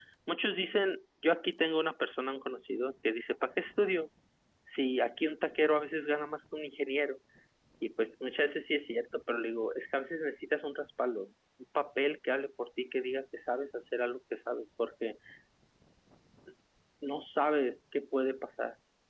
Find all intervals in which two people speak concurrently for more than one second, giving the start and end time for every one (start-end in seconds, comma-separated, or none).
none